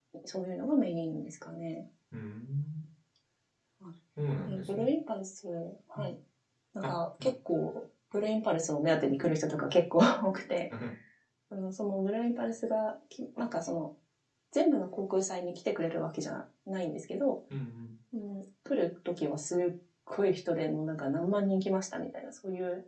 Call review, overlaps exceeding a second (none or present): none